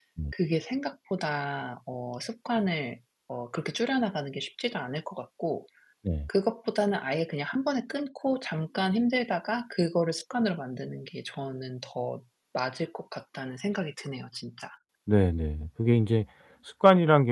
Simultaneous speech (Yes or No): No